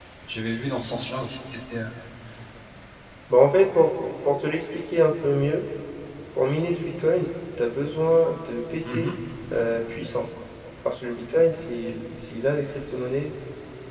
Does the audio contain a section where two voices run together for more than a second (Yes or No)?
No